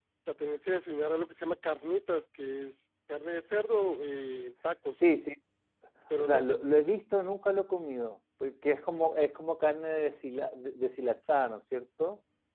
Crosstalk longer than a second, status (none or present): none